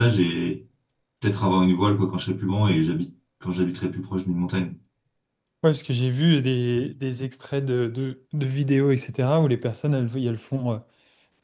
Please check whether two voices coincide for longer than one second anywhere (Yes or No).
No